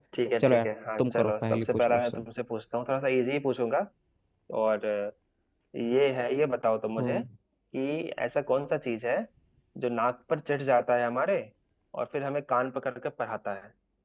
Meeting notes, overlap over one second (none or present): present